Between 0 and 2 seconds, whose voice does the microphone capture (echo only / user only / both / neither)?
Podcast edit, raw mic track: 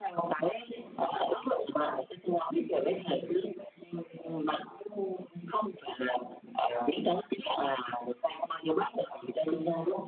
echo only